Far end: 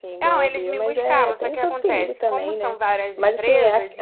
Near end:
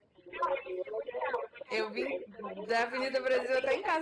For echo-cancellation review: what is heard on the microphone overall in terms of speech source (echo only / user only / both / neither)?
both